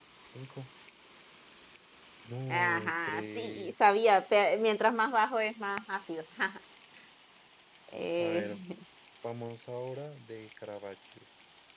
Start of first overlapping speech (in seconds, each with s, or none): 2.5 s